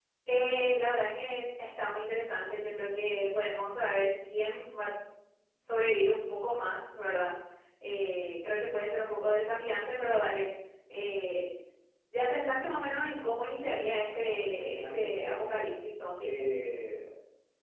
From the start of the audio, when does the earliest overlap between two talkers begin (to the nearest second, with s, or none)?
14 s